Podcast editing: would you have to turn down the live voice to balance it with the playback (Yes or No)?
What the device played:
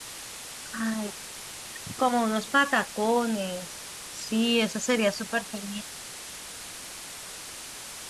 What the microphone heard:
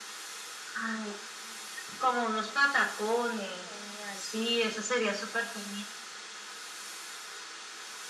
No